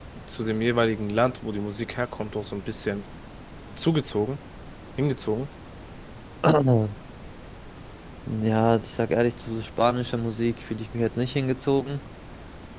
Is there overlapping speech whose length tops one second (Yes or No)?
No